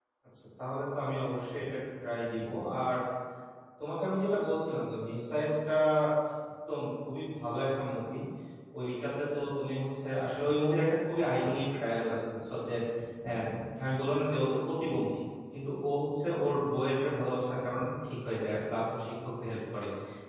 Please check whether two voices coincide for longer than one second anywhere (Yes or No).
No